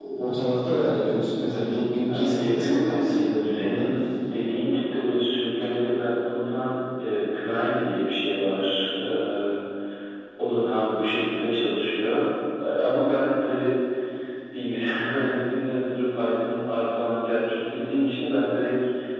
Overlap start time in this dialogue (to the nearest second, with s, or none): 2 s